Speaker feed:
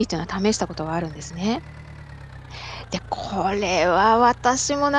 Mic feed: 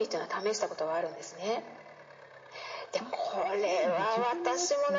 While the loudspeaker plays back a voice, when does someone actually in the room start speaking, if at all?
3.0 s

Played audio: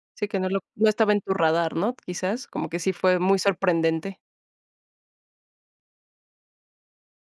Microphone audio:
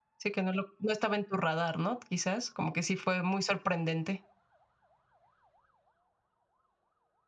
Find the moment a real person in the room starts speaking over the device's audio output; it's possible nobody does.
none

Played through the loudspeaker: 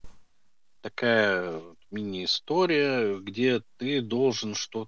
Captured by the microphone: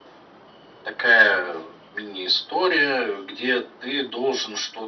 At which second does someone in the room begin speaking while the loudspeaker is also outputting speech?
none

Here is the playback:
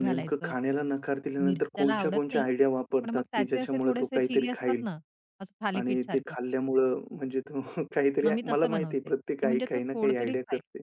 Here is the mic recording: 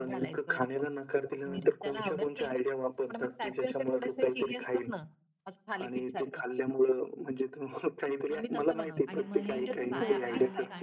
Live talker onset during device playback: 9.1 s

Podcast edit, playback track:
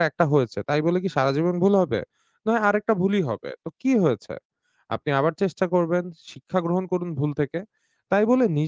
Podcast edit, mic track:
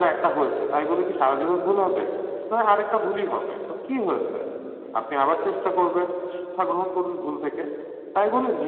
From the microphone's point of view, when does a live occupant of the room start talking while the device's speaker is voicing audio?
none

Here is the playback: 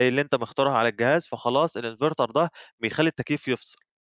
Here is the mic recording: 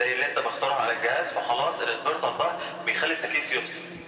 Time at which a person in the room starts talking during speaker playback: none

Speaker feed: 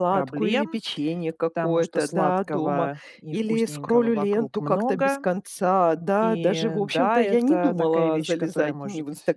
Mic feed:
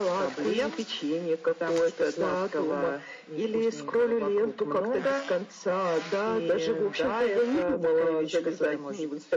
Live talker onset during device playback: none

